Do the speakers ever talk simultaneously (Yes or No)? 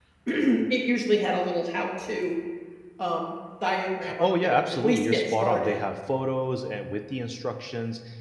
Yes